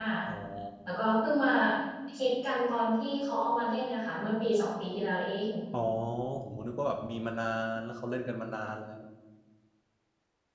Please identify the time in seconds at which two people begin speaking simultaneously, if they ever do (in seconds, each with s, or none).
none